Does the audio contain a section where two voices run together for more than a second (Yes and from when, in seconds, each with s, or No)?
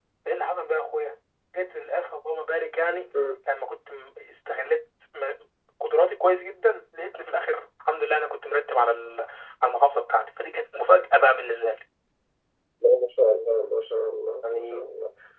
No